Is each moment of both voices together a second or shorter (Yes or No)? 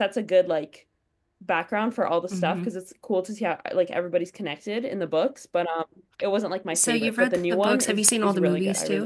No